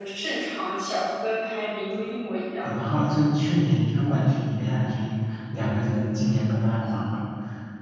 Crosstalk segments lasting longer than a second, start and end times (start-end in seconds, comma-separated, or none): none